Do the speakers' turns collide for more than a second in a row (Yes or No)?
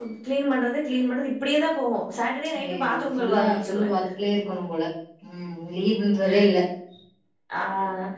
Yes